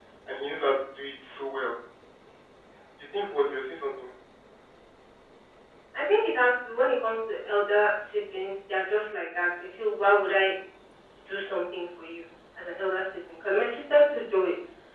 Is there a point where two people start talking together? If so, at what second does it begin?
none

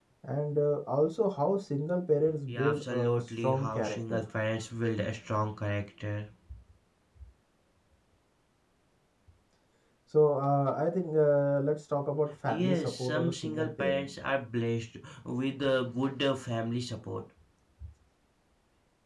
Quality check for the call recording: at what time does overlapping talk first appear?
2 s

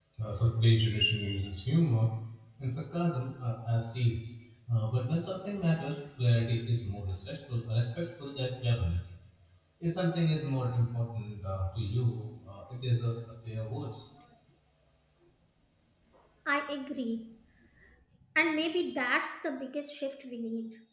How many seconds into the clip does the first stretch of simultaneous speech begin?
none

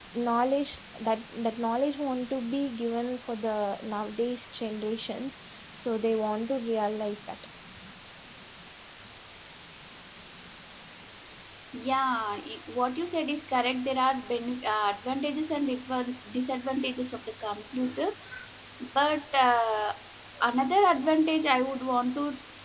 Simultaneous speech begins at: none

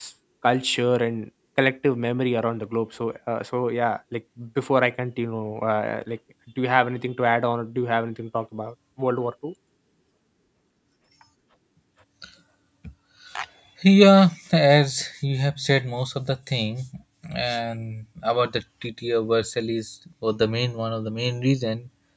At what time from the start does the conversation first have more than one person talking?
none

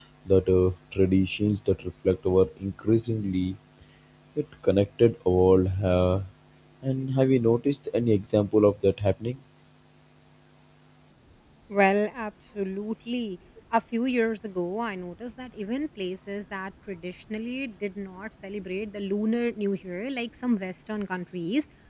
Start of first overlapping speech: none

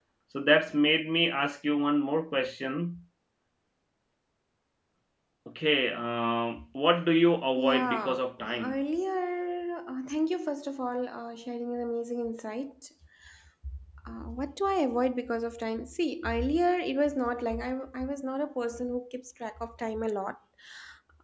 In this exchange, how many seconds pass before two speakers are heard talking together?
8 s

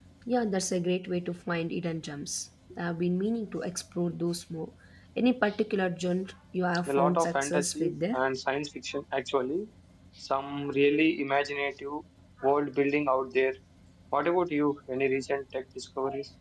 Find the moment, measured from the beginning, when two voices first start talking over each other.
7 s

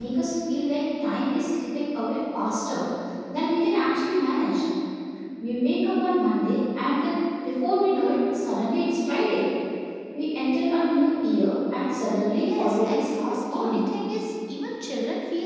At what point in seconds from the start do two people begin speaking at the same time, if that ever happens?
12 s

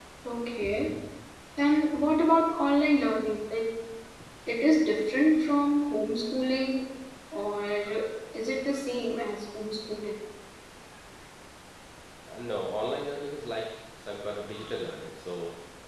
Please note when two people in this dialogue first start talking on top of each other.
none

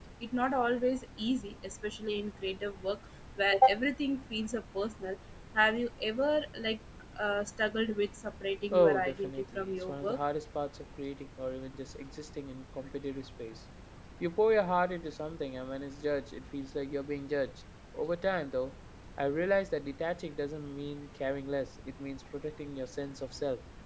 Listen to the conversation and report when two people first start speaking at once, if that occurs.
9 s

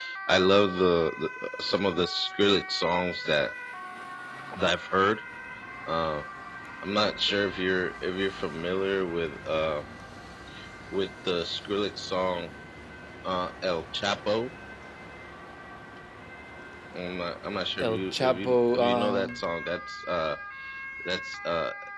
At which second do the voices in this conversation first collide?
18 s

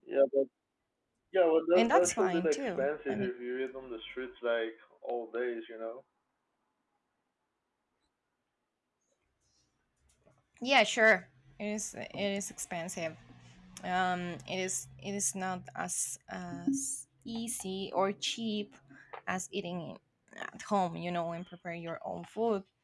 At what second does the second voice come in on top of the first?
2 s

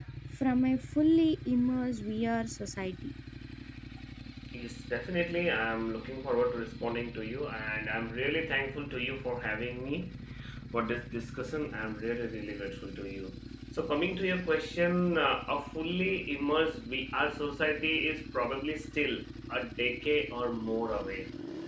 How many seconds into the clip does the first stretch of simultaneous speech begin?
none

